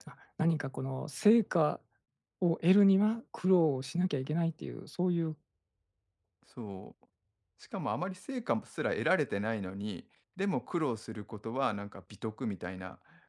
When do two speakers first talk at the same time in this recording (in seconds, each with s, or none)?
none